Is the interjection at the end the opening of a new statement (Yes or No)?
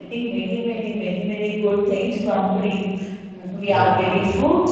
No